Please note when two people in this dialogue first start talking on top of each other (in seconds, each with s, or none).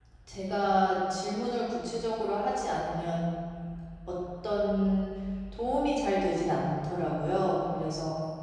none